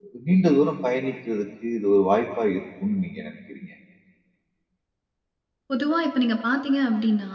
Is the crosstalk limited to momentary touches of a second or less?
Yes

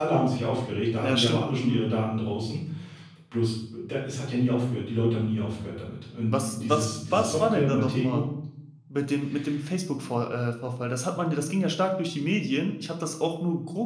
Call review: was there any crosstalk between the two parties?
Yes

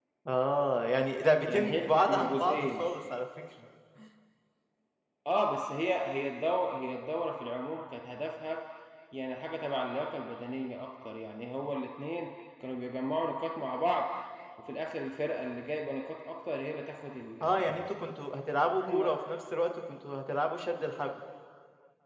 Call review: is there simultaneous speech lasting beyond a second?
Yes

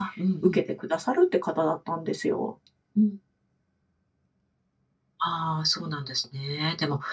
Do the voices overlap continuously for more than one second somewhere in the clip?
No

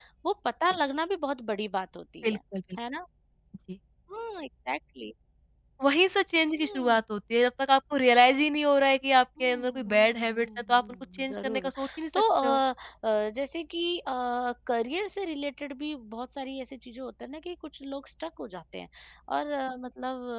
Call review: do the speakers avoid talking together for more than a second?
No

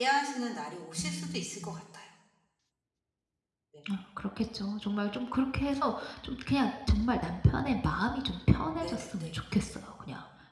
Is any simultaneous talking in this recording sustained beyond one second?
No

